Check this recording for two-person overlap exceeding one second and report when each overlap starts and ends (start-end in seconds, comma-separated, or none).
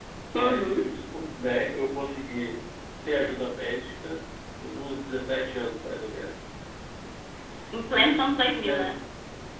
none